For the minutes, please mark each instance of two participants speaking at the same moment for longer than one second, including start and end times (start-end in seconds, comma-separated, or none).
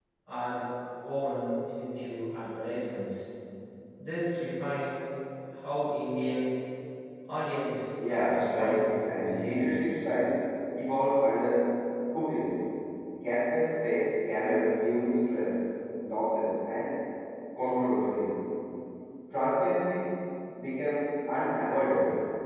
8.1-9.9